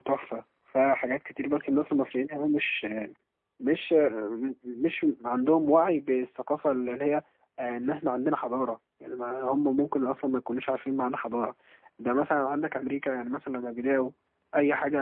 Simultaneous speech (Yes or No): No